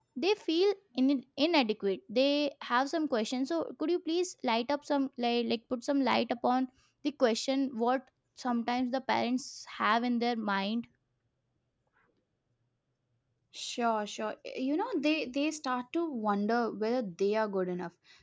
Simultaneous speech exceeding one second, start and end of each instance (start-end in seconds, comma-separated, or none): none